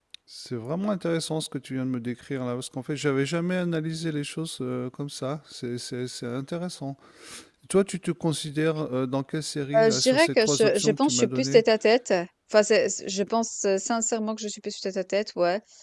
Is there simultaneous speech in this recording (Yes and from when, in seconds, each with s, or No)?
Yes, from 9.7 s